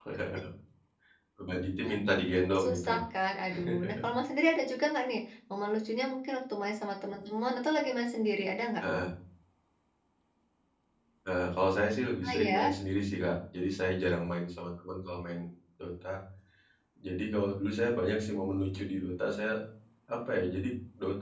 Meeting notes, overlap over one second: none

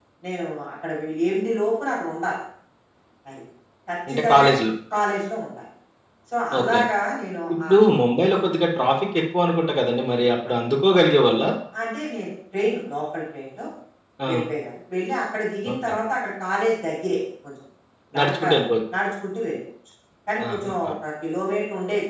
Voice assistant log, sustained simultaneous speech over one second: none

